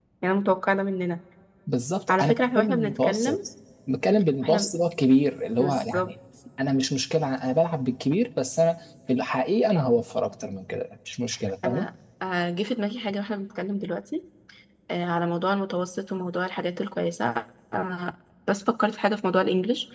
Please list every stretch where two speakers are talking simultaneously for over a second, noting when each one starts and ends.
2.1-3.4

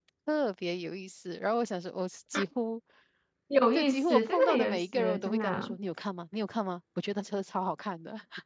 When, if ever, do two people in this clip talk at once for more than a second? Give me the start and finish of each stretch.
3.8-5.8

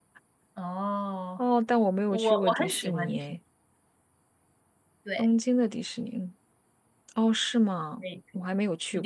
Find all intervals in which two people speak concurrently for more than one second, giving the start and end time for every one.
2.1-3.4

